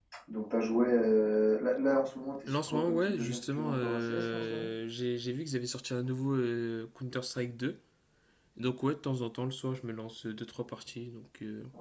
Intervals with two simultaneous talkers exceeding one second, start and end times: 2.5-4.7

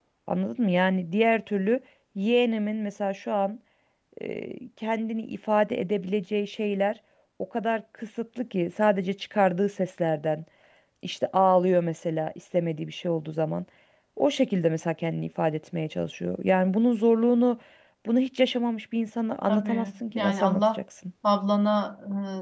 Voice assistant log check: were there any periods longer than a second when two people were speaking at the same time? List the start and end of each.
19.5-20.8

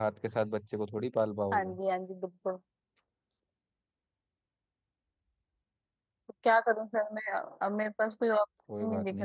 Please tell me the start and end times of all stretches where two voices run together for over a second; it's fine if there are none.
none

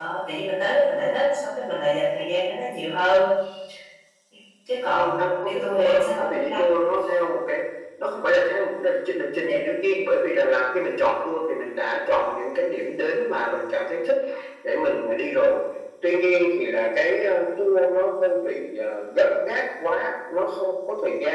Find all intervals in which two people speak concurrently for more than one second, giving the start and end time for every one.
5.0-6.7

